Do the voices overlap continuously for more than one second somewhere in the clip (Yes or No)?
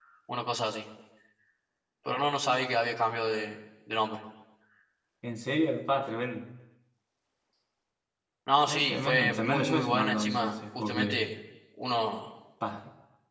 Yes